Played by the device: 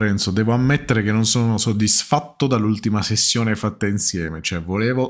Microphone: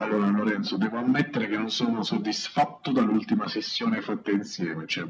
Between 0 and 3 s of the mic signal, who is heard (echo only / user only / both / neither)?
echo only